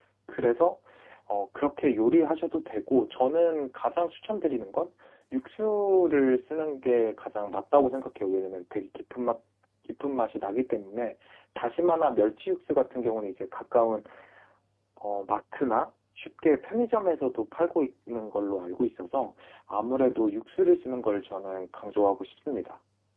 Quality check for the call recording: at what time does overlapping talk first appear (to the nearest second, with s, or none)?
none